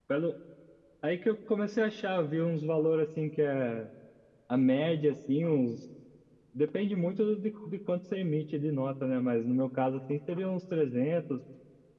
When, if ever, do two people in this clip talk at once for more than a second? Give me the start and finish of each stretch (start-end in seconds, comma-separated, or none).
none